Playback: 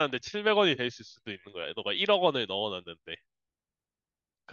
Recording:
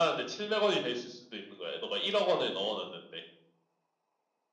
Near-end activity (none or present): none